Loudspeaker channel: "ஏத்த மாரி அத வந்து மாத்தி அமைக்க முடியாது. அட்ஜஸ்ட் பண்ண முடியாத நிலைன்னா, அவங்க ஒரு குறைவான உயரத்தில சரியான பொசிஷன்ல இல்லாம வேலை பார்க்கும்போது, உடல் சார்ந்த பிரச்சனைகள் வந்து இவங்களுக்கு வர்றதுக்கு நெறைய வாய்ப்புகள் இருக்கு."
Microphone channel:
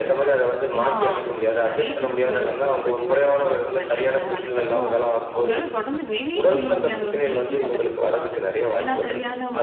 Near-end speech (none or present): present